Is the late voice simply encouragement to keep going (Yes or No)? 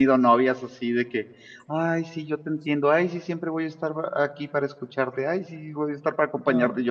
Yes